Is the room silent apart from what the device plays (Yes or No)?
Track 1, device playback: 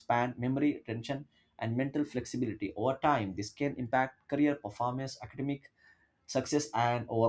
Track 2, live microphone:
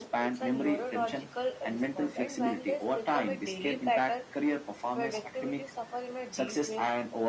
No